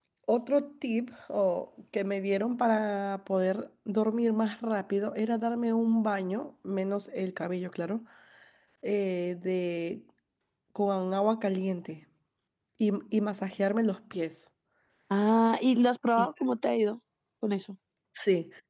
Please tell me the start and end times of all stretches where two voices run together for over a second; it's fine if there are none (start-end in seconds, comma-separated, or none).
none